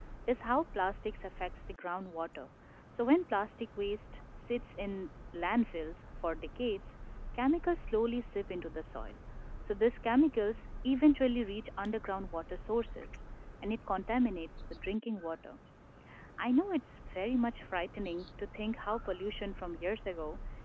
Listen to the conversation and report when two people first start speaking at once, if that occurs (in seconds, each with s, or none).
none